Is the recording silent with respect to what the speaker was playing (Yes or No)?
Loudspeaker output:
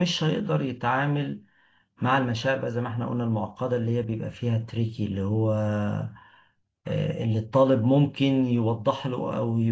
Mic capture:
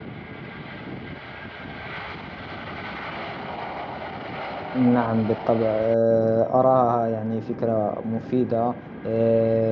Yes